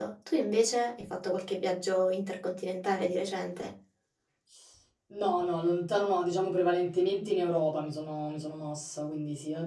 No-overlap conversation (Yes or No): Yes